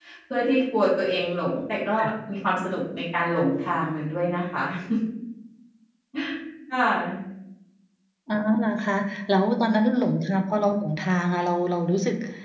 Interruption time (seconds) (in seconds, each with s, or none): none